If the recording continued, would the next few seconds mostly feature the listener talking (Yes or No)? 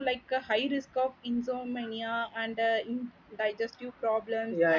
Yes